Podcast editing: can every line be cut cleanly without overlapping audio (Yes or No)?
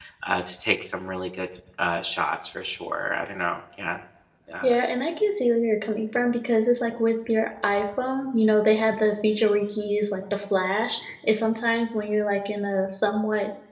Yes